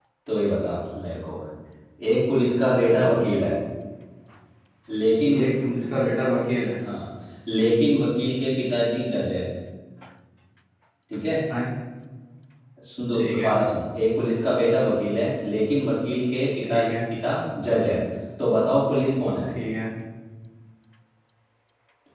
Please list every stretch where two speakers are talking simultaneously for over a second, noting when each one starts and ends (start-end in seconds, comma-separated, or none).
none